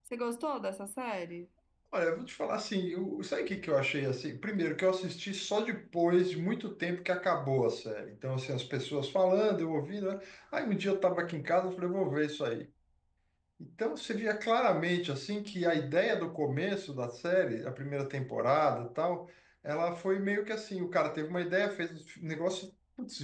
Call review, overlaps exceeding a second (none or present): none